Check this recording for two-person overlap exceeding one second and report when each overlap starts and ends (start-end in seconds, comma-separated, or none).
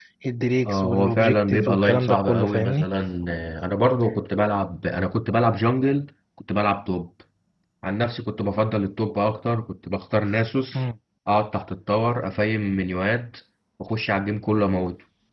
0.7-2.9